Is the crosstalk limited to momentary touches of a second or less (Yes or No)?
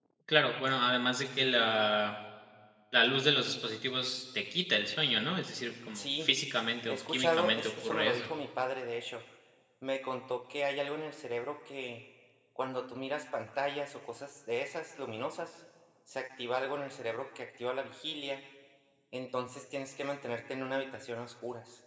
No